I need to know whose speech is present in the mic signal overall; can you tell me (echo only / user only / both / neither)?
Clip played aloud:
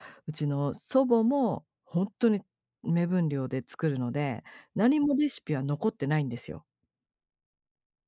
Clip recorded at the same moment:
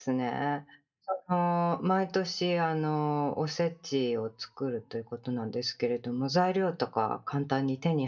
user only